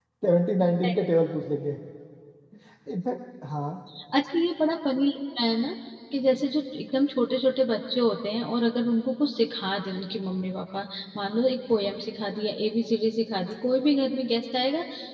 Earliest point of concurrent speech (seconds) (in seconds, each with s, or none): none